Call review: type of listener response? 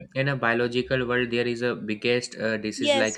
taking over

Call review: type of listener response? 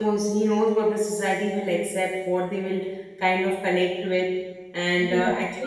taking over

